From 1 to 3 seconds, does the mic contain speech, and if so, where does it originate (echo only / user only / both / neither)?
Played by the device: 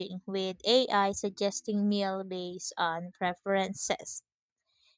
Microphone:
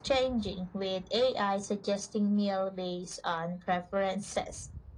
echo only